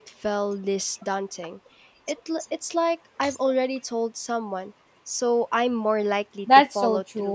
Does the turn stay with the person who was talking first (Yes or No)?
No